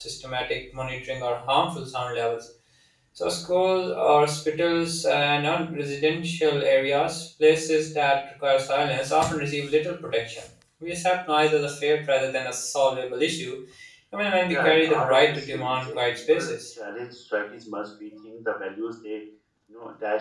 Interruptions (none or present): present